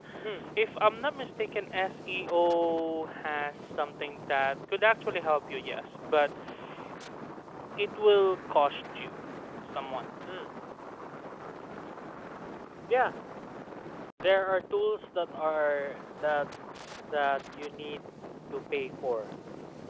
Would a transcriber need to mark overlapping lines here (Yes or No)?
No